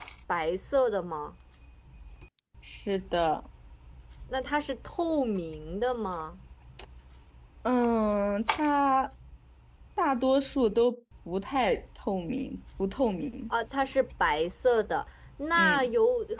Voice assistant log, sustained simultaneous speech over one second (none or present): none